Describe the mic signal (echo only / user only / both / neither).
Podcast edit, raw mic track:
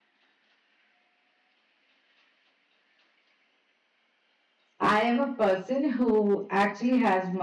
user only